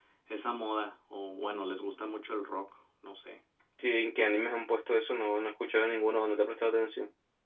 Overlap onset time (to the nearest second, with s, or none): none